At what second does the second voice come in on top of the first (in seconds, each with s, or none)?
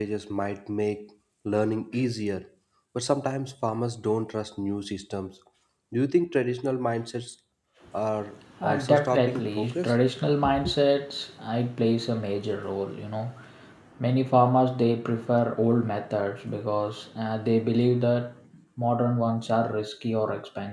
8.6 s